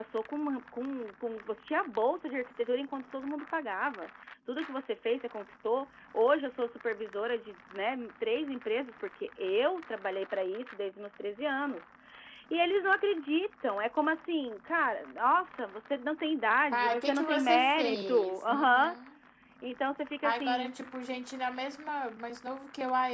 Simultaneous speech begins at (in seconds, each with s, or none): 16.7 s